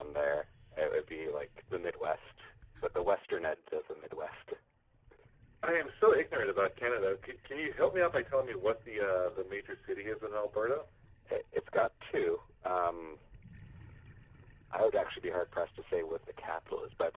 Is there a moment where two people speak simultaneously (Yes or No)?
No